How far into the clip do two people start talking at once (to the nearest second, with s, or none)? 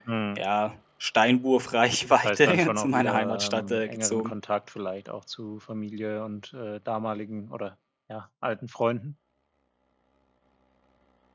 2 s